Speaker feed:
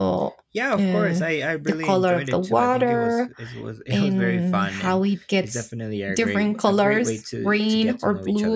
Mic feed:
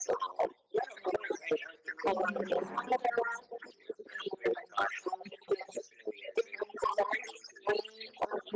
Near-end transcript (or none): if you would like.